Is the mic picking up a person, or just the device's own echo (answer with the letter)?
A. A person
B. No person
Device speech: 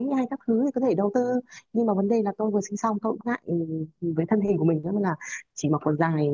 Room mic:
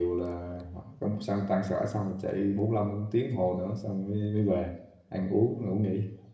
A